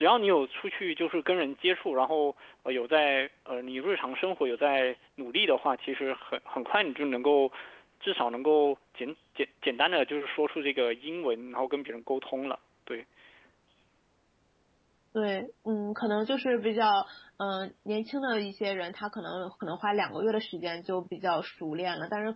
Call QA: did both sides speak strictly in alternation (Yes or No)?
Yes